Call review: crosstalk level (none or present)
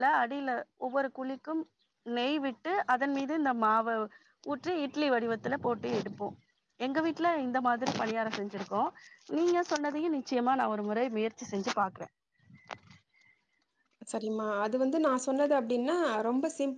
none